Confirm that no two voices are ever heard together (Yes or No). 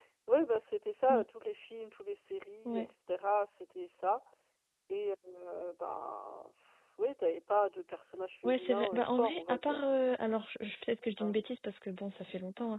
No